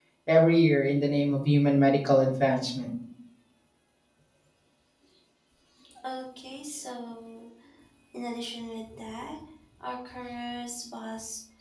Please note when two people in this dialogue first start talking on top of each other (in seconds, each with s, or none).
none